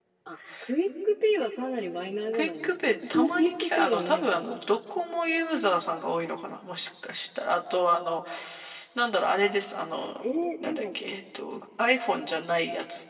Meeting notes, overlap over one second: present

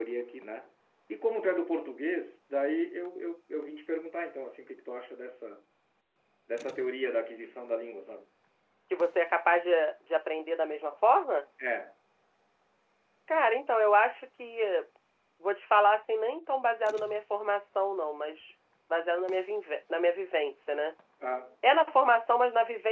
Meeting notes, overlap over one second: none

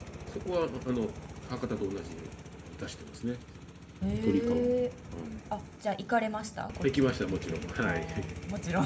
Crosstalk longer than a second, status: present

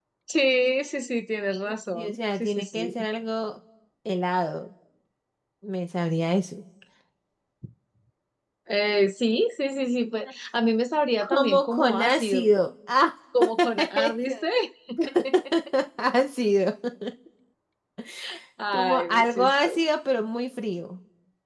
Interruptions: present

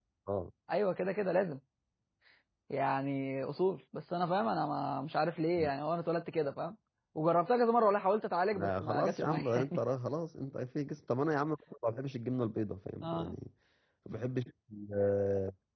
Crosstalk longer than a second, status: present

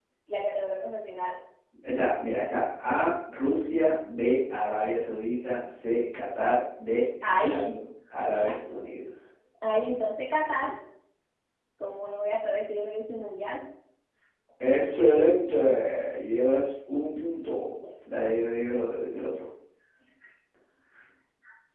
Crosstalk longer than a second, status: none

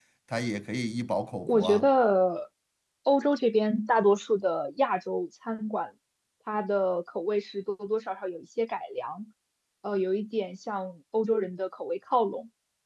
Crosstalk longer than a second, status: none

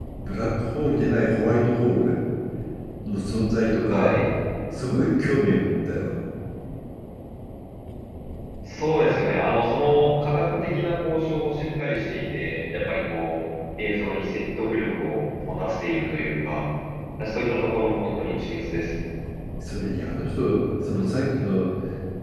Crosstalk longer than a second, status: none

